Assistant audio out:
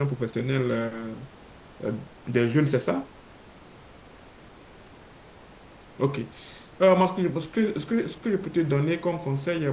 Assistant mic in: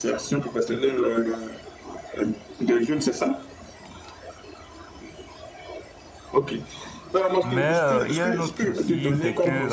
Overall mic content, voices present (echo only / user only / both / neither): both